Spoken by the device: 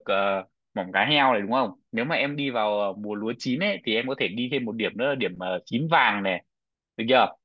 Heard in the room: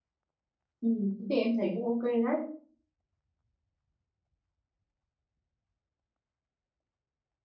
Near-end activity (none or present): present